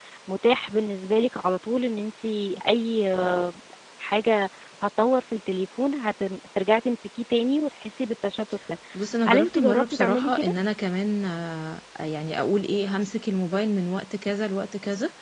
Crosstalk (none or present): present